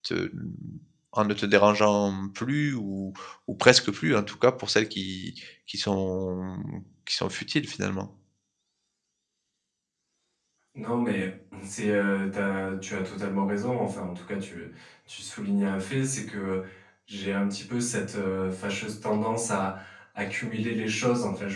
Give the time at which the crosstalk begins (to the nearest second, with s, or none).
none